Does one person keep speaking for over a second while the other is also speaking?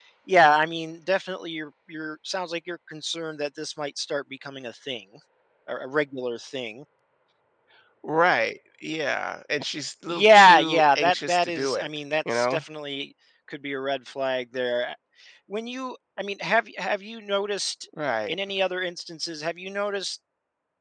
Yes, from 10.1 s

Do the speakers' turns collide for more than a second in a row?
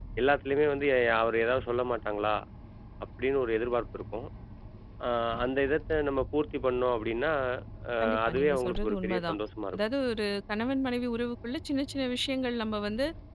Yes, from 8.0 s

